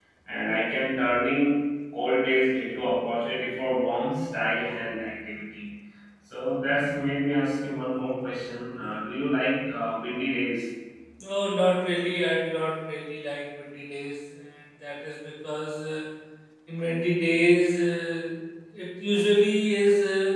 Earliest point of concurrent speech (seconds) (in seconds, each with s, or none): none